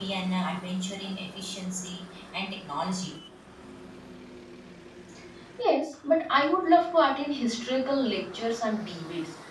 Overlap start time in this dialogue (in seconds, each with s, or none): none